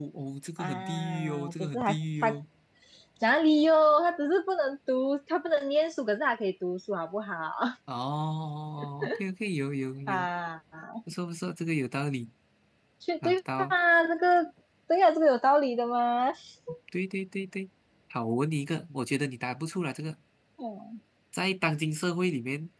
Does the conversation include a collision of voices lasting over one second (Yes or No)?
Yes